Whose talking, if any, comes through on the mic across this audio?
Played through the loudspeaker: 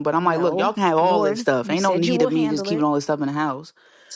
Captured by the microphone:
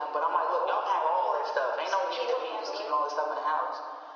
echo only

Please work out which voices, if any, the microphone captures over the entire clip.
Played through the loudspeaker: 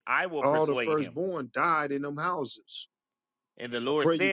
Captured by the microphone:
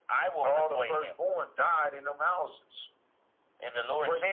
echo only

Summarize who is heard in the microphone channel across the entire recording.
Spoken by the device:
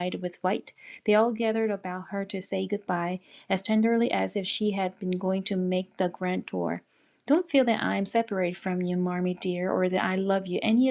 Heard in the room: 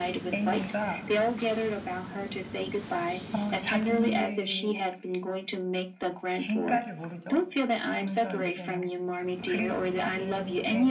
both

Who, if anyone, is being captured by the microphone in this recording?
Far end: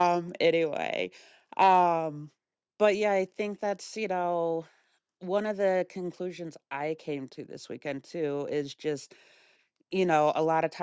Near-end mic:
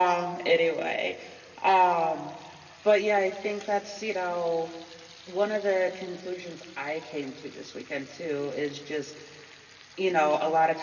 echo only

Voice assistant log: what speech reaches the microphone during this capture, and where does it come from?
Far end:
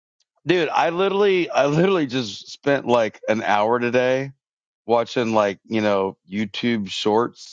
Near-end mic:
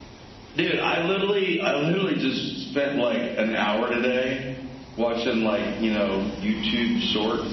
echo only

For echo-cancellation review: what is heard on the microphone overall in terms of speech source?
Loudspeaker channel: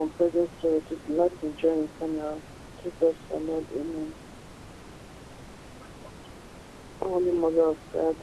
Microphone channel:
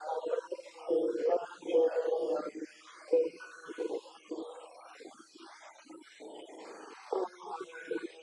echo only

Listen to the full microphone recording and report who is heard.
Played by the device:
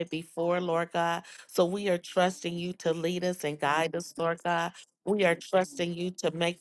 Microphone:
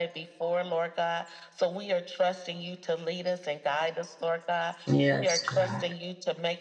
both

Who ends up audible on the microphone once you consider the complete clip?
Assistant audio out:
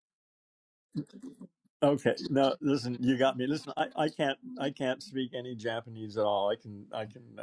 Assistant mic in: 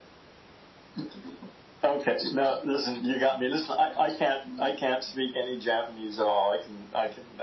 echo only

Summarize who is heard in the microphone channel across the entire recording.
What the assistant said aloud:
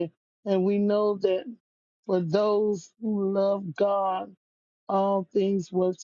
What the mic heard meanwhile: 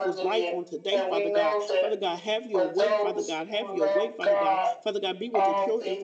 both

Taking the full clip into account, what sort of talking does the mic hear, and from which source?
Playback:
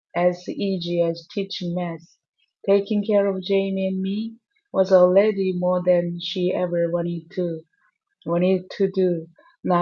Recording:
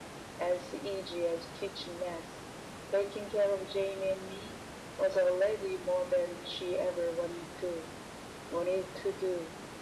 echo only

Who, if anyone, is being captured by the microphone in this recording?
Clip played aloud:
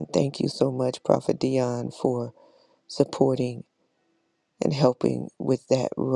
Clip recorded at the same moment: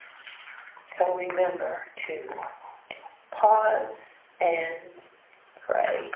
user only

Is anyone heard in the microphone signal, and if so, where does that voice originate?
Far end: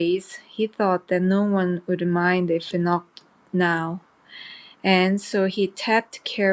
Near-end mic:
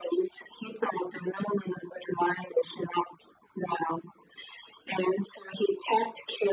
echo only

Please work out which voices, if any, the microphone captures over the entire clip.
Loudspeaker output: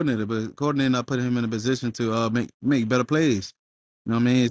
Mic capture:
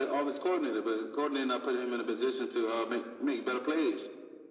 echo only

